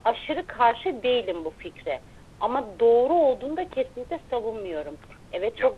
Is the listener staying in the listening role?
Yes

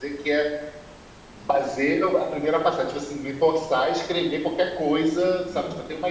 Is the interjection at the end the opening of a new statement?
No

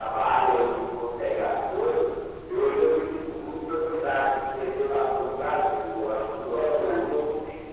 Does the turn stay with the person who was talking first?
No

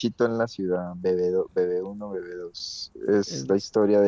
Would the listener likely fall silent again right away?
Yes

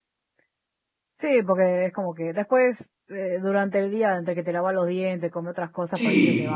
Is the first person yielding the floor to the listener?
Yes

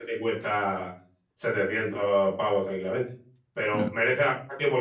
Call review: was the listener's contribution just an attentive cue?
Yes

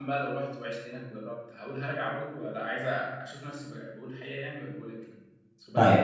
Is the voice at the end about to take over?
Yes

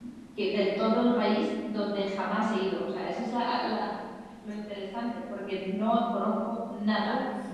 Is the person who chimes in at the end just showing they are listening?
No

